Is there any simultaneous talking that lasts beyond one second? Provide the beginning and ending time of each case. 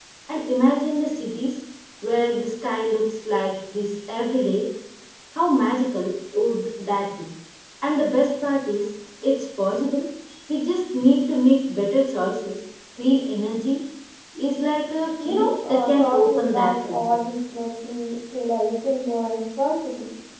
15.2-17.2

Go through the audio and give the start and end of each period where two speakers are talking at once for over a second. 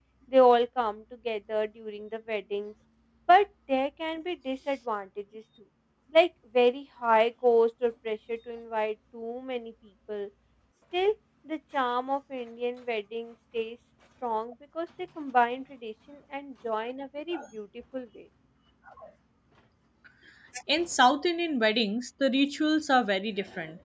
none

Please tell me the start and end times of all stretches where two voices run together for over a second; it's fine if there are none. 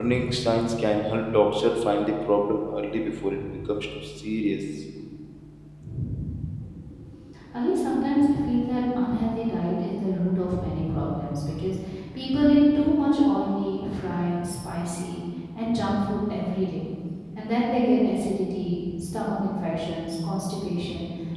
none

